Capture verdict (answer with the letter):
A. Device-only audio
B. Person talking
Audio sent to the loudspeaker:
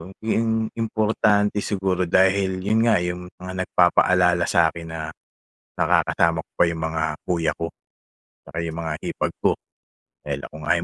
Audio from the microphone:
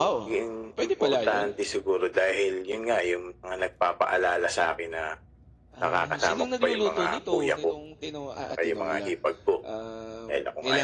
B